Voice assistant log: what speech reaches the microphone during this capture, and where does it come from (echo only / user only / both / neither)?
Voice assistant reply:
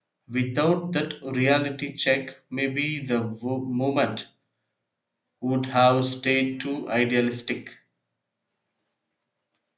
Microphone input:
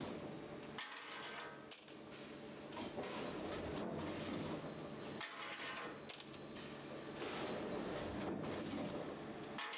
neither